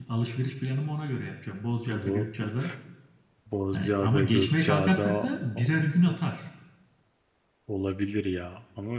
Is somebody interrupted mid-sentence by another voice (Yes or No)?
Yes